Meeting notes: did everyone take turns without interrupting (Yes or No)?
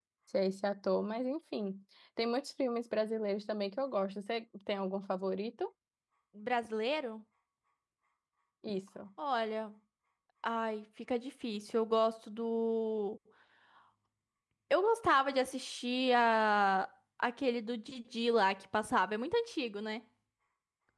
Yes